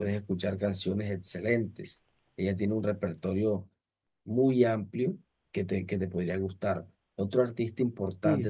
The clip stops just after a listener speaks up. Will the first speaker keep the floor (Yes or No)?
No